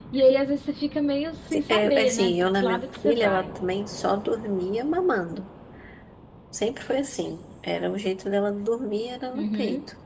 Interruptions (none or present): present